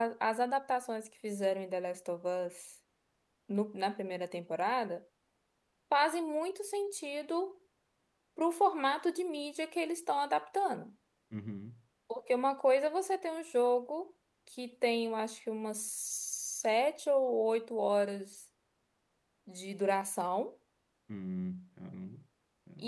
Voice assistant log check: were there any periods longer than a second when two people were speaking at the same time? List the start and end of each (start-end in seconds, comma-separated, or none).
none